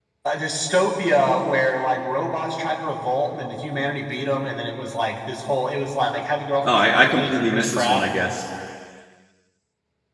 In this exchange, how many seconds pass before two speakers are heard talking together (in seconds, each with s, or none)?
6.6 s